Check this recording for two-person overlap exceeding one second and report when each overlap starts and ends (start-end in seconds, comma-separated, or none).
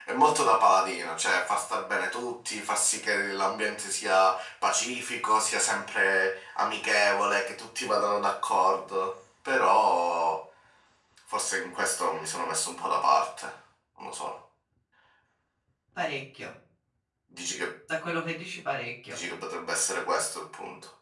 none